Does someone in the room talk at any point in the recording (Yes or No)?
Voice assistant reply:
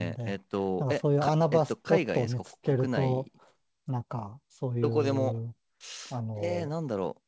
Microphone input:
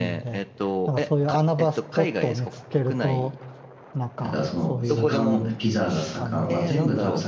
Yes